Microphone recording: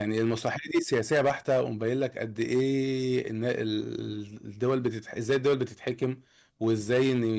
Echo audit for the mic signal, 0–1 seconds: user only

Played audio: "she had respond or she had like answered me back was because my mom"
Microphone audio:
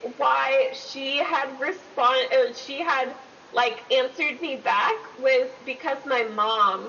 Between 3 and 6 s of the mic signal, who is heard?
echo only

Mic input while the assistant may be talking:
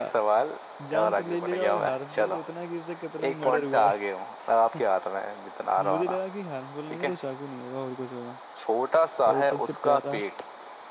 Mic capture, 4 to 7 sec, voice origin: both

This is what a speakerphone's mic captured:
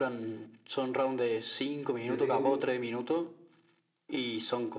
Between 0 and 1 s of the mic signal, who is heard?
echo only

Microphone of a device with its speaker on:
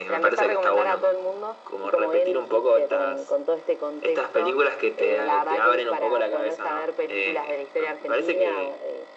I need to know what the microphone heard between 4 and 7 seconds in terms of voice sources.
echo only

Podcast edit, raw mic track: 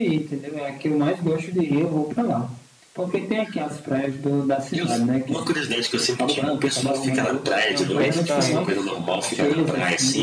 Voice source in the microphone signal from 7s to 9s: both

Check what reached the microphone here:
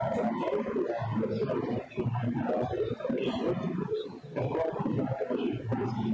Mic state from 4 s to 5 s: echo only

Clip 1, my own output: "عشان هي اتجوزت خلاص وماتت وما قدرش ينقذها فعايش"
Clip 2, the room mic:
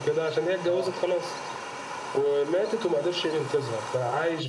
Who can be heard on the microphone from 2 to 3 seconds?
echo only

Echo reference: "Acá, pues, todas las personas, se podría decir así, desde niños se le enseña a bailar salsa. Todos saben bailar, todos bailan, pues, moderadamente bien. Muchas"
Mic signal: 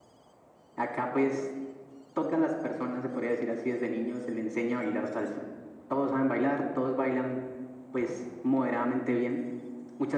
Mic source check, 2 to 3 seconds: echo only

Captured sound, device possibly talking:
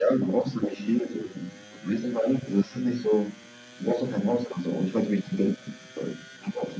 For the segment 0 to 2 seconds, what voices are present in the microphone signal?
echo only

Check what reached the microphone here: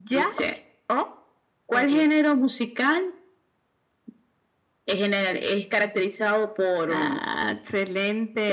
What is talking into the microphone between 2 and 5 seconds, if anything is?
echo only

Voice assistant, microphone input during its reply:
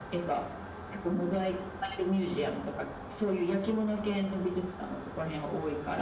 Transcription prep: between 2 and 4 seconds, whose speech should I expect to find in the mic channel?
echo only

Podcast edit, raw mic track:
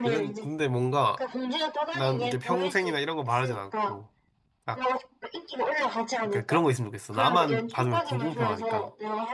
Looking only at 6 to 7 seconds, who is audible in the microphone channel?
both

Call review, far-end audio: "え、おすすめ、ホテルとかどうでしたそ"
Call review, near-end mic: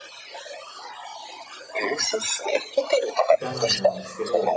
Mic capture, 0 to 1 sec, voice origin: neither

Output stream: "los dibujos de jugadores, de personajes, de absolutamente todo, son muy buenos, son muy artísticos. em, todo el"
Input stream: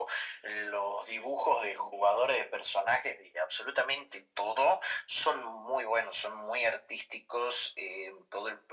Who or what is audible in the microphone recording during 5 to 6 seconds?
echo only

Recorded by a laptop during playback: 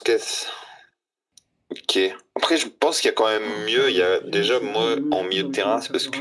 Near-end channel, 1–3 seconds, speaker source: echo only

